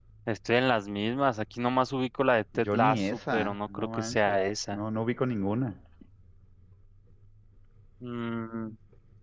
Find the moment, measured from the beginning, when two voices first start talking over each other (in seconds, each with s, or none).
2.6 s